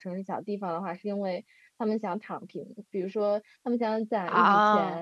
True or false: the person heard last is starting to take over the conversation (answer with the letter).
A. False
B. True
A